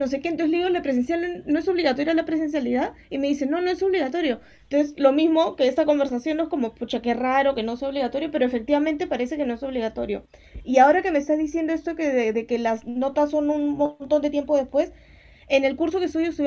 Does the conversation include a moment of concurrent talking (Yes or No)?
No